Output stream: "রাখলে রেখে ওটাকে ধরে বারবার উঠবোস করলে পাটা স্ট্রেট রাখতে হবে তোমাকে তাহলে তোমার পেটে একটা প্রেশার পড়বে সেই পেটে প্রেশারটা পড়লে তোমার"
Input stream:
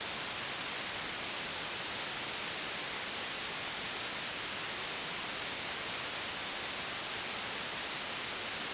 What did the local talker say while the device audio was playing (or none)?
none